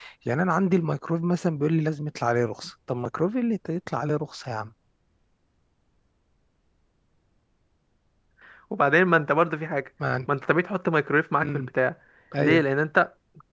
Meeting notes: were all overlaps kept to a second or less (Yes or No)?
Yes